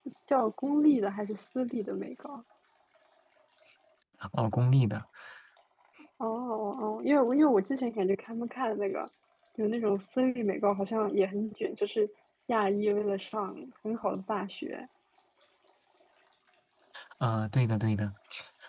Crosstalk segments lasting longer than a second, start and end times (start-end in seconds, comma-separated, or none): none